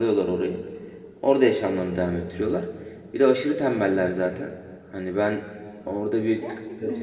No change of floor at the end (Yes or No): Yes